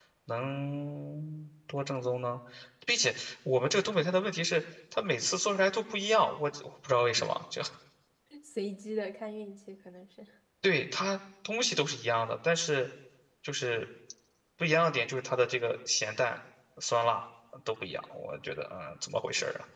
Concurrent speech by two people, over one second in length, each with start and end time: none

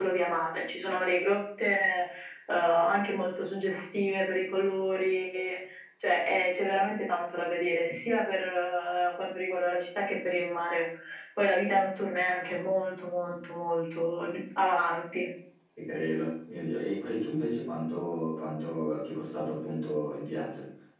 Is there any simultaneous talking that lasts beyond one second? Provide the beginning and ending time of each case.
none

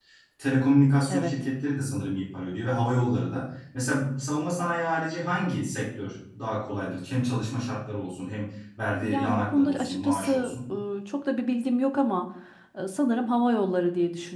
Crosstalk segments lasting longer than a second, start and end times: 9.0-10.5

